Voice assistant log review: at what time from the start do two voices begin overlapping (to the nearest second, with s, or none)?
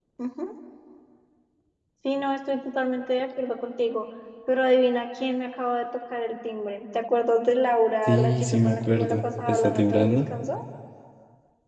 8 s